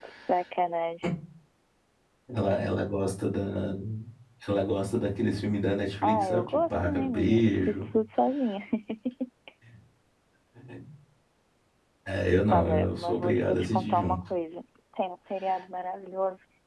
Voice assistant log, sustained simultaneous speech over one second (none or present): present